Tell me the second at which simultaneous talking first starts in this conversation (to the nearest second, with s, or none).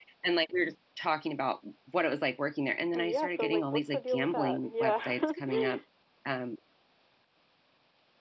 3 s